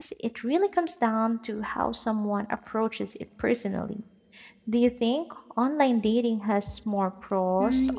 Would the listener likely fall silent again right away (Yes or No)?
No